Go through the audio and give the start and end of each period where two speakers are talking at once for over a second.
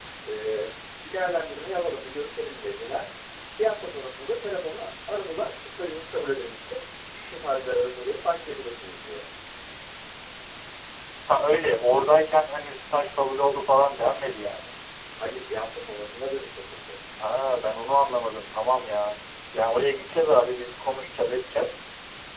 none

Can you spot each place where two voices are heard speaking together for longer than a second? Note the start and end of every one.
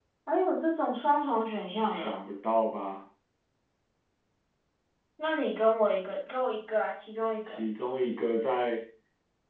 none

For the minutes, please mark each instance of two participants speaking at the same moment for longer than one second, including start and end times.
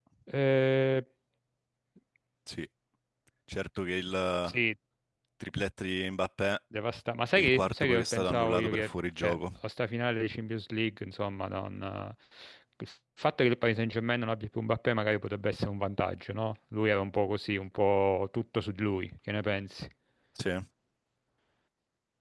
7.3-9.4

